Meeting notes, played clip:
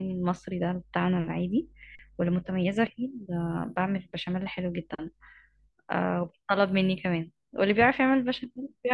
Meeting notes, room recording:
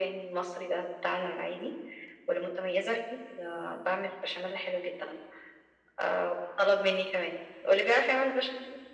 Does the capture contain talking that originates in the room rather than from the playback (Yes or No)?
No